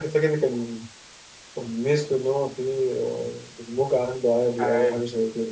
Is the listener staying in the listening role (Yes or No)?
No